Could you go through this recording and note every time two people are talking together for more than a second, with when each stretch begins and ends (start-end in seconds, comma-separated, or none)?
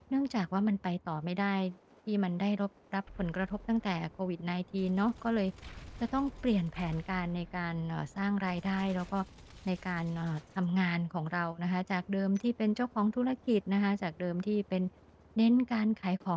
none